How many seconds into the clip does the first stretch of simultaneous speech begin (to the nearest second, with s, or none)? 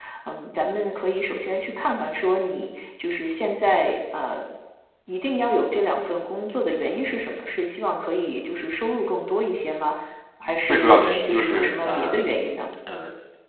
11 s